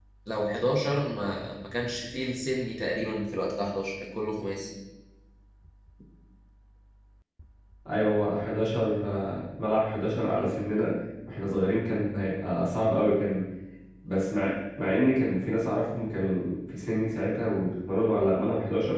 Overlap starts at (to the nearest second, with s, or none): none